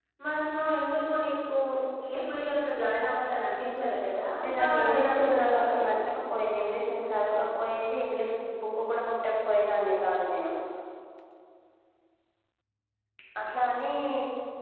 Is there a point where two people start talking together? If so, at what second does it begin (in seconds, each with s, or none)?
4.3 s